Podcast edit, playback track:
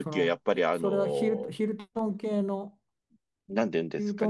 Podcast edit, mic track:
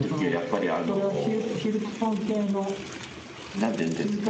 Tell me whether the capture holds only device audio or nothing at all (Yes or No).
Yes